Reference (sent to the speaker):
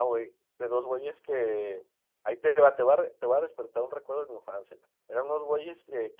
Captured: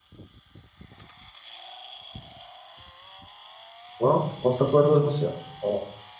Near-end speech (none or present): present